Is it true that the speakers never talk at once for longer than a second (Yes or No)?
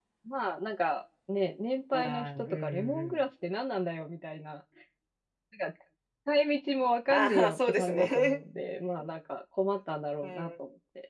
No